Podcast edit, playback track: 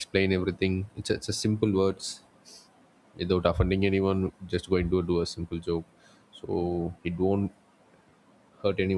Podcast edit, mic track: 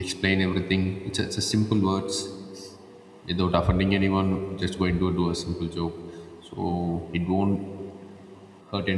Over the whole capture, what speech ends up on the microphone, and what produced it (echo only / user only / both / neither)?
echo only